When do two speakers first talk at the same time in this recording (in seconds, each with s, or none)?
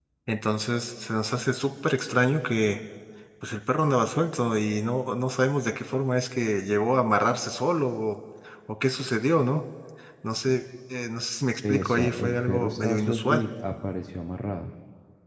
11.6 s